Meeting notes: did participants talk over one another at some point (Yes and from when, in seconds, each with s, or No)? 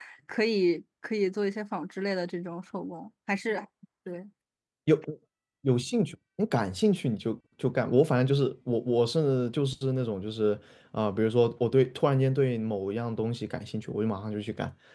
No